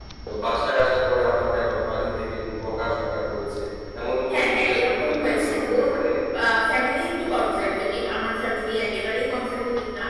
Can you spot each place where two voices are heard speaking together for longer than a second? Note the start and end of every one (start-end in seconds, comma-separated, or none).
4.3-5.8